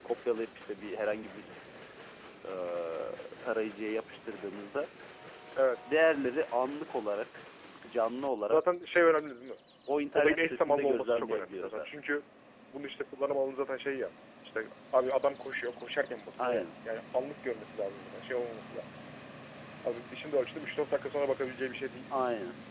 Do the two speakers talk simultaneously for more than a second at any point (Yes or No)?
Yes